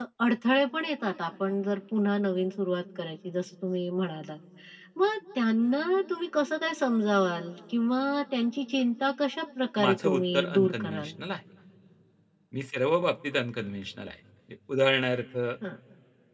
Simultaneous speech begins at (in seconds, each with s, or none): 9.8 s